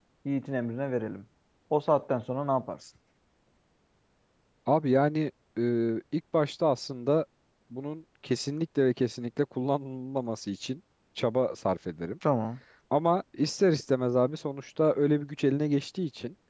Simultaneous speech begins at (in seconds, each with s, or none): none